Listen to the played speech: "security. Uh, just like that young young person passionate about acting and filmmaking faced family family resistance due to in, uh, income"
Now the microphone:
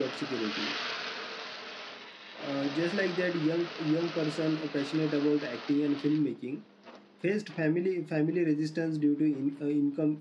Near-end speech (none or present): none